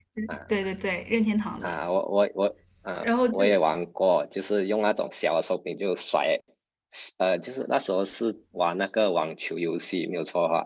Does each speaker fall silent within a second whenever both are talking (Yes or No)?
Yes